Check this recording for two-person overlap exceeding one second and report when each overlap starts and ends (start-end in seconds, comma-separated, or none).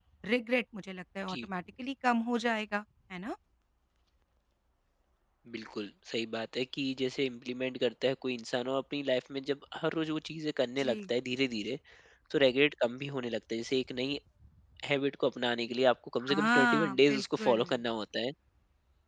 16.3-17.6